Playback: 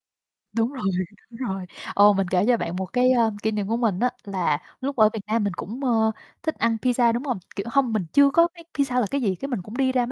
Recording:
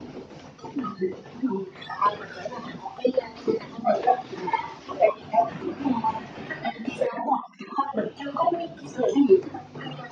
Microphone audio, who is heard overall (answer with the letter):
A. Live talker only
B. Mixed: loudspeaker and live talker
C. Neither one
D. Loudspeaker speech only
D